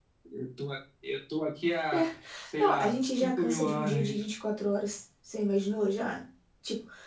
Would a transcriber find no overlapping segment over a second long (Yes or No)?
No